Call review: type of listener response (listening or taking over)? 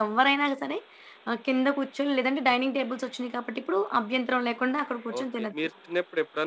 taking over